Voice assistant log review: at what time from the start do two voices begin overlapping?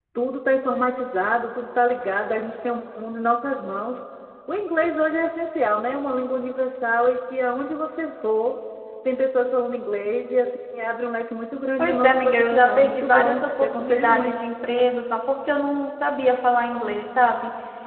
11.8 s

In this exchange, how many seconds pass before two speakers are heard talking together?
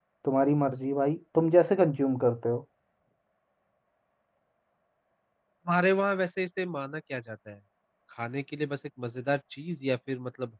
none

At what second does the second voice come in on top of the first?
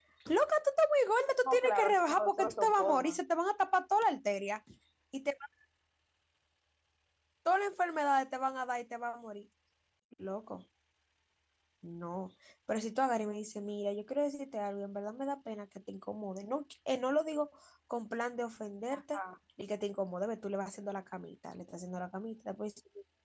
1.4 s

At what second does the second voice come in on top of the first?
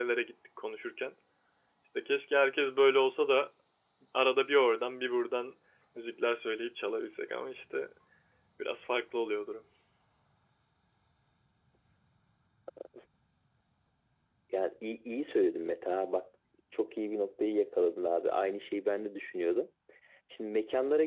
none

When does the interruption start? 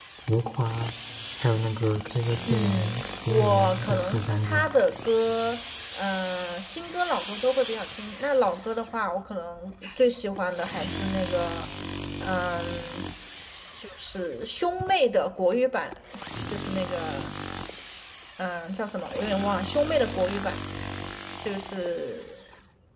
2.5 s

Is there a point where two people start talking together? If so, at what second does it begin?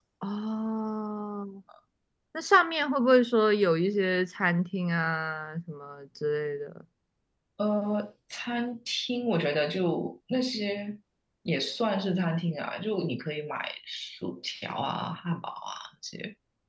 none

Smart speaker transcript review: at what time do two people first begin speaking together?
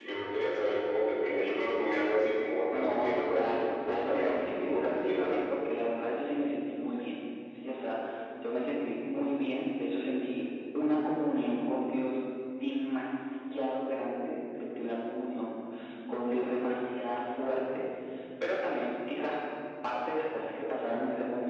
2.7 s

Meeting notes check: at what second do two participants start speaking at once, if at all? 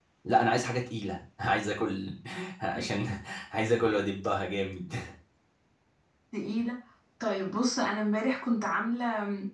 none

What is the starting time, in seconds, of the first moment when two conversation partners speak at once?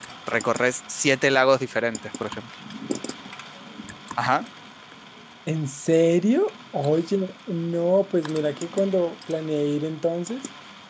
none

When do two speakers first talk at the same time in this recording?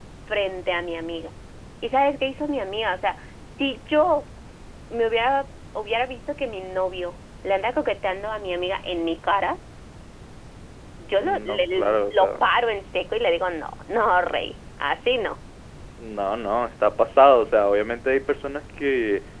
11.2 s

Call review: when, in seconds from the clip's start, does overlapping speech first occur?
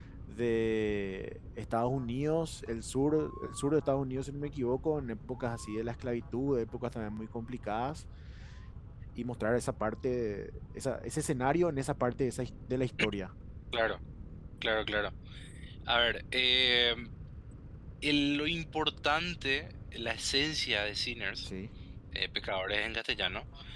none

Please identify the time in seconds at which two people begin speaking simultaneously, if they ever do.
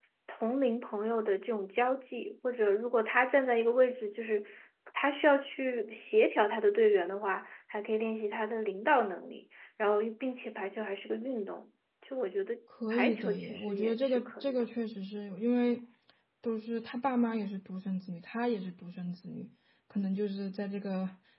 12.9 s

